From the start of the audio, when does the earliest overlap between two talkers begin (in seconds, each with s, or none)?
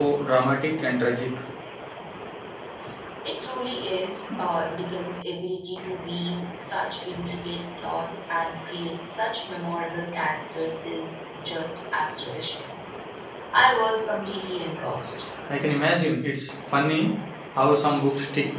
none